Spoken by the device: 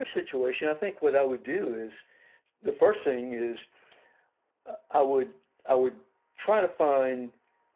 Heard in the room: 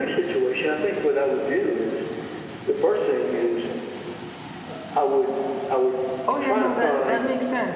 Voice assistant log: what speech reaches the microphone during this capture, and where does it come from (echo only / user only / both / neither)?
both